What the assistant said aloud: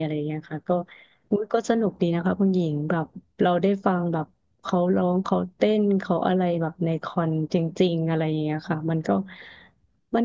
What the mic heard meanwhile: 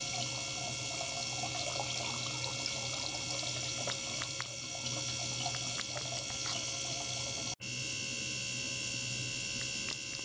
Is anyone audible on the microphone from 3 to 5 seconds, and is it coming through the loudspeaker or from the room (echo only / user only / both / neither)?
neither